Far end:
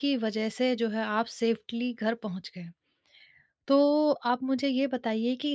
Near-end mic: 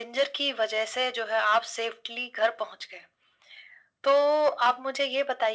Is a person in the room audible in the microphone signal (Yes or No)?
No